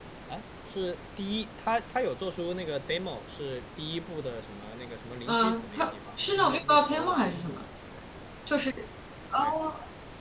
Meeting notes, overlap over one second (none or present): present